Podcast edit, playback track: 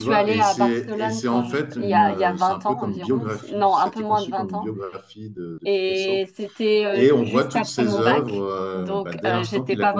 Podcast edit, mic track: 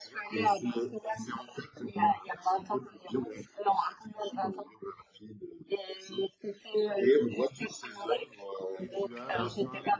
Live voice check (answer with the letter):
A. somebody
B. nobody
A